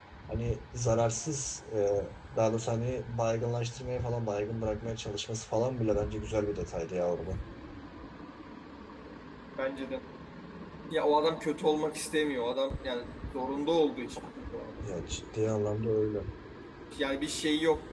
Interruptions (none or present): none